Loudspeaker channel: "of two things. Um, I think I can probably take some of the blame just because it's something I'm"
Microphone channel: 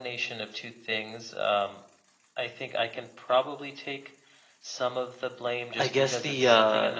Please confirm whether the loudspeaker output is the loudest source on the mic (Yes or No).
No